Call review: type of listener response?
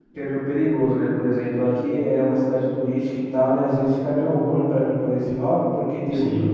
listening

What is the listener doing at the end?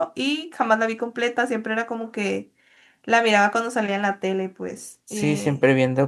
taking over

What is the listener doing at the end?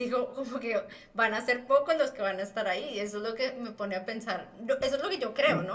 taking over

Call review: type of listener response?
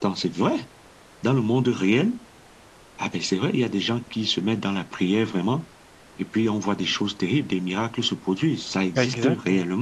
taking over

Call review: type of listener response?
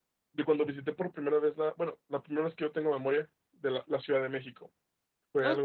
taking over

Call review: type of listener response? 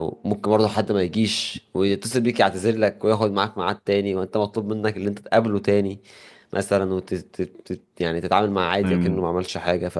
listening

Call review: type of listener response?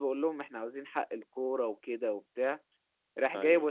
listening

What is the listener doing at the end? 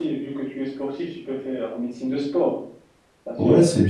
taking over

